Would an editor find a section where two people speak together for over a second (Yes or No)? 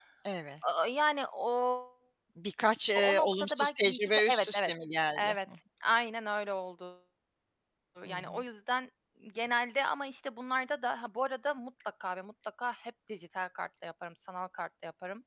Yes